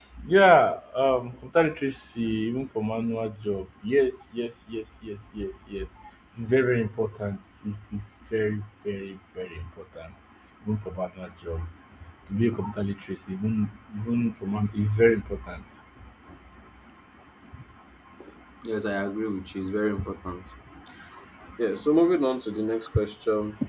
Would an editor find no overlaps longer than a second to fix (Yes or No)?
Yes